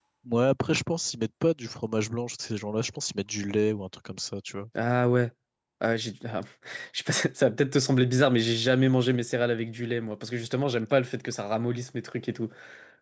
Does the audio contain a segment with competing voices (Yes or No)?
No